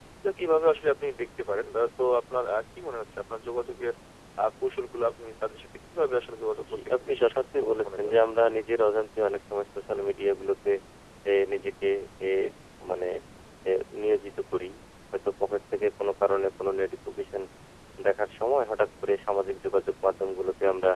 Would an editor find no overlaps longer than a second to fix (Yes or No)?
No